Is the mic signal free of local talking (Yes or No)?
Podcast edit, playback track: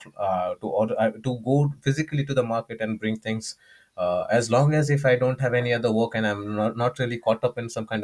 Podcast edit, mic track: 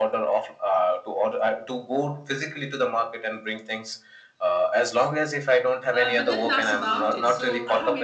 No